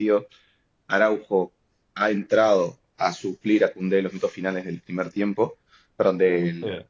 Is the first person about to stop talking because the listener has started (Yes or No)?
No